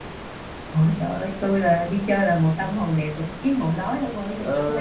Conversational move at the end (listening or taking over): taking over